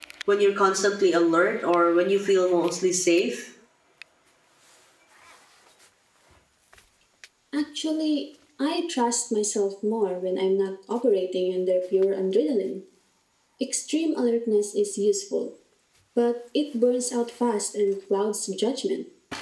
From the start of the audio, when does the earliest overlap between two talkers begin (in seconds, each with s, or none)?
none